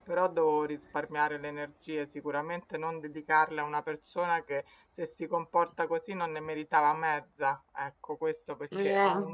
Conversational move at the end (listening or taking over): listening